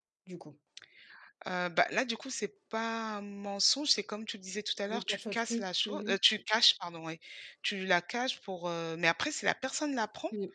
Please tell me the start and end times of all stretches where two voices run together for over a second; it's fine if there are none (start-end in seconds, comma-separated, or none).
4.9-6.2